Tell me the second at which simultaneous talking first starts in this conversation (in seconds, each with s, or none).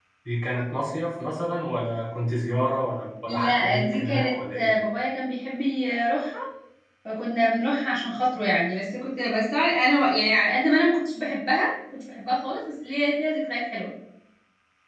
3.3 s